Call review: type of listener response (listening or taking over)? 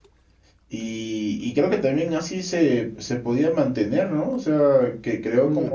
taking over